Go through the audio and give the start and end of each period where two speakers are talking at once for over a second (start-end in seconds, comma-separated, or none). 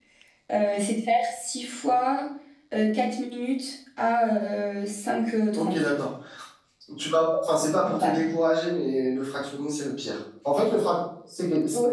none